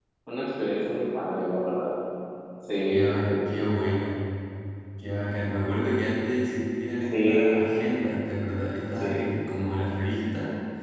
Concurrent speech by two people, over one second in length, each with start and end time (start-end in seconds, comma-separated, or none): none